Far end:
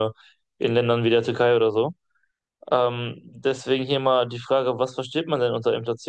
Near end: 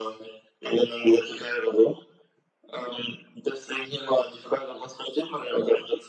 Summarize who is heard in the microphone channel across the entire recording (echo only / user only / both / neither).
echo only